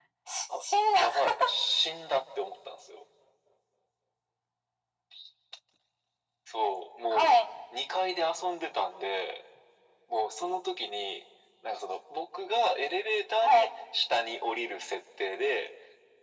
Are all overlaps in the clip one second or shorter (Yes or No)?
Yes